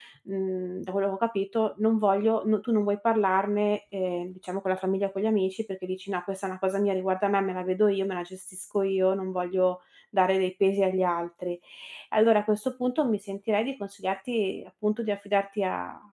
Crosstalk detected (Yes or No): No